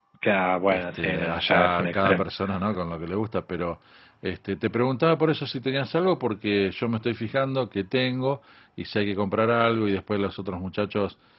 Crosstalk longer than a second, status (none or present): present